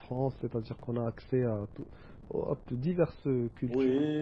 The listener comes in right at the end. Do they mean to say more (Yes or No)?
Yes